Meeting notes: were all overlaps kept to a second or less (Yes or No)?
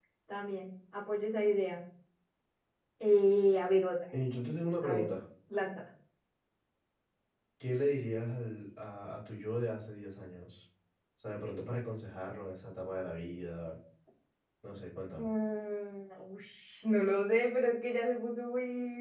Yes